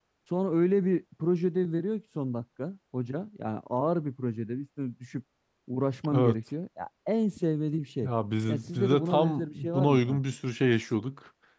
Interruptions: present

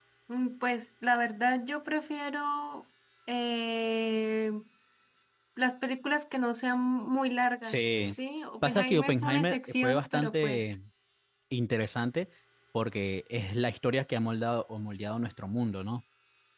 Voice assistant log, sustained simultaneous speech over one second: present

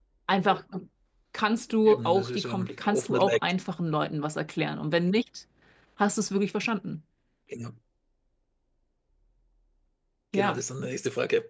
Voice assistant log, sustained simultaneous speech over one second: present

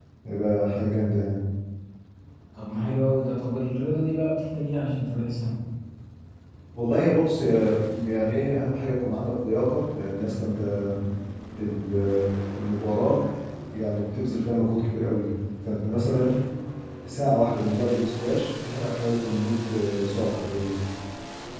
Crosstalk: none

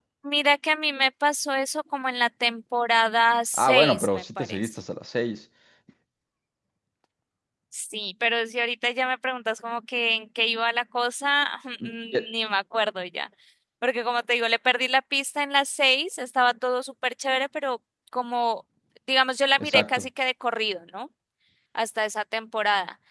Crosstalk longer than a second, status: present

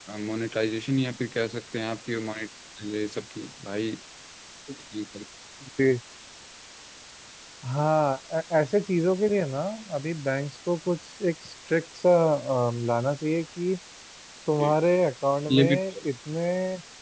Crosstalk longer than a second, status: none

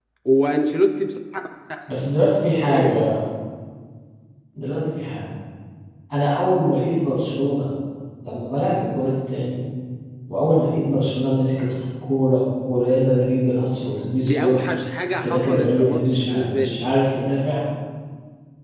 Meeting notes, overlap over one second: present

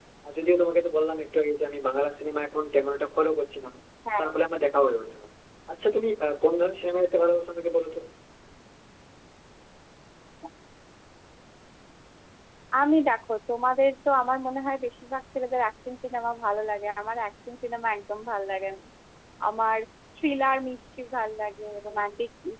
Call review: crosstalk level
none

